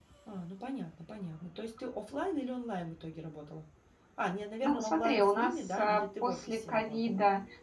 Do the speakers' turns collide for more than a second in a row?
Yes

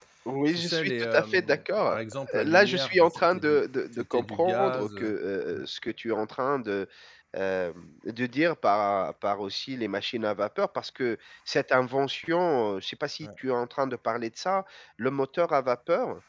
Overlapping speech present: Yes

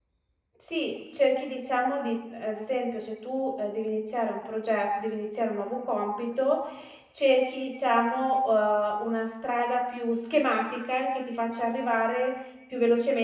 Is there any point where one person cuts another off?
No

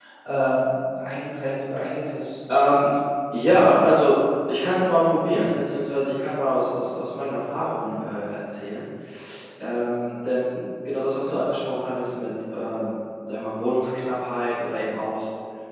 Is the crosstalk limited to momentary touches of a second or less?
Yes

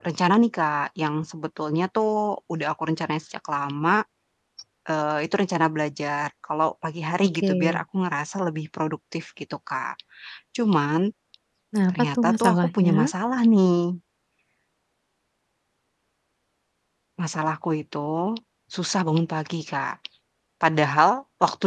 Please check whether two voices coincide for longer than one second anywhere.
Yes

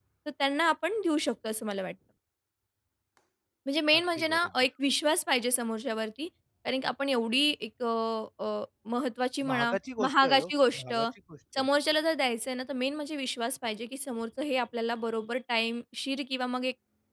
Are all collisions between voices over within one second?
No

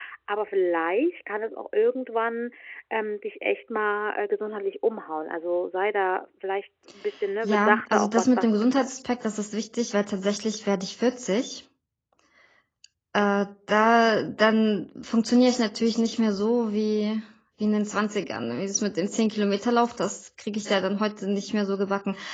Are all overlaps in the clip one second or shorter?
No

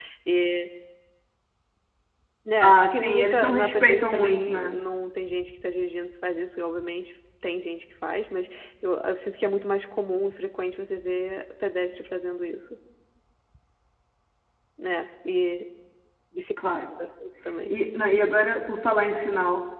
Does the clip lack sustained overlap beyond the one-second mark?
No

